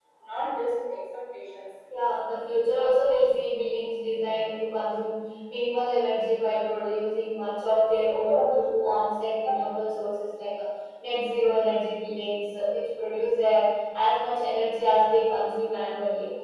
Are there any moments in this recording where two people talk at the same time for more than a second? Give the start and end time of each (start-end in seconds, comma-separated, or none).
none